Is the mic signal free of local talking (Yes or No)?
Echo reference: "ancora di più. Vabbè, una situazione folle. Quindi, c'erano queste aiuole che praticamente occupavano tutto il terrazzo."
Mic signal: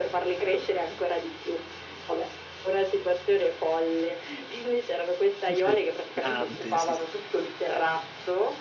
No